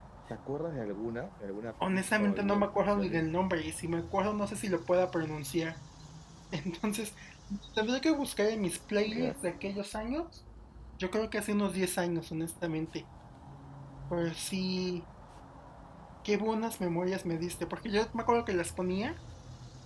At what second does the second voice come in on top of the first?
1.9 s

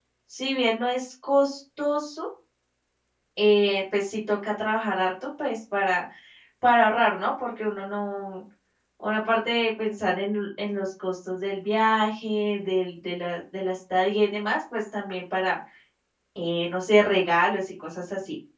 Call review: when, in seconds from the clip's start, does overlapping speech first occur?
none

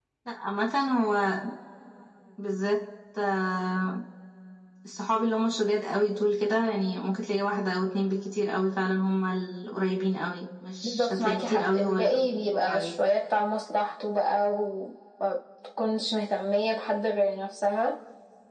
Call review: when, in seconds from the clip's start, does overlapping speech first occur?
10.8 s

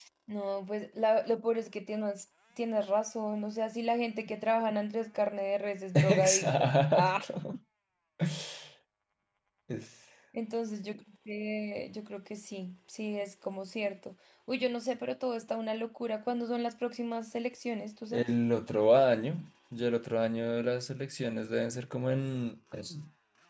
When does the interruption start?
6.0 s

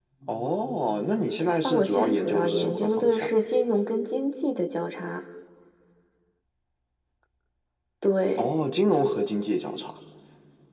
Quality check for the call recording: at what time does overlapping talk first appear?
1.4 s

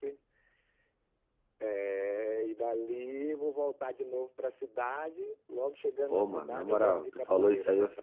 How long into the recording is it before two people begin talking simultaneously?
6.1 s

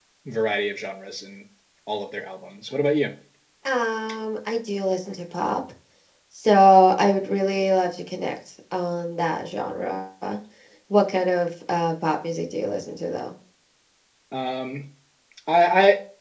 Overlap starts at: none

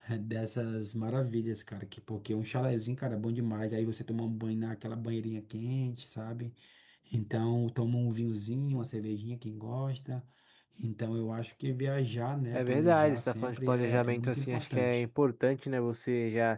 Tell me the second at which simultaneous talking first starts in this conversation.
12.5 s

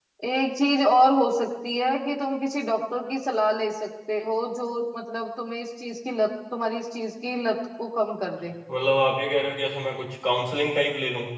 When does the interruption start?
none

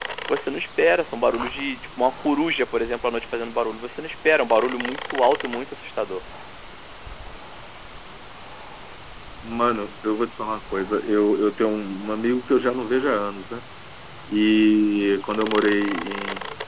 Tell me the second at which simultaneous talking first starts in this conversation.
none

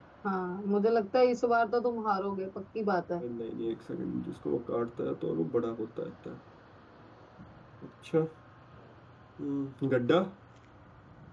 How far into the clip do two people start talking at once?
none

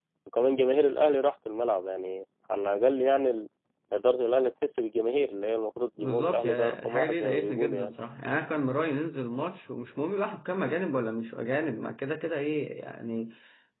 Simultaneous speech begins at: 6.0 s

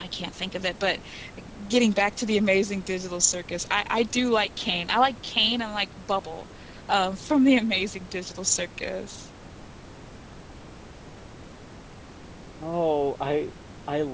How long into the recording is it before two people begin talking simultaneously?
none

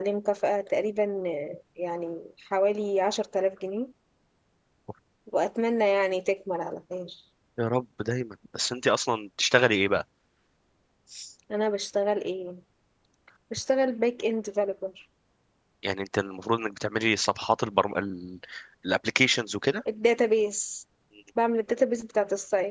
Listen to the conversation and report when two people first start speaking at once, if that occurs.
none

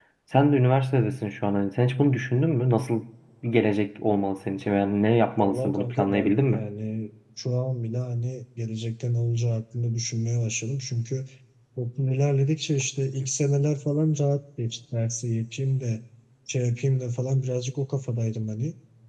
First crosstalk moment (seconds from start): 5.3 s

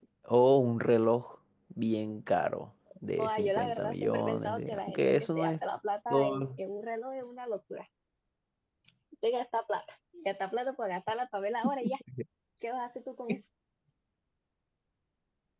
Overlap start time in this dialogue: 3.2 s

